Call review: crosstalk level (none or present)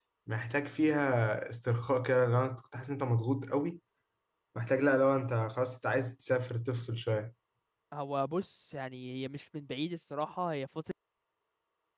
none